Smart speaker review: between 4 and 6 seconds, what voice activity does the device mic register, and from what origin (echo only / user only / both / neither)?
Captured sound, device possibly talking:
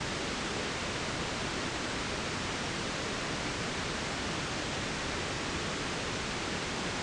neither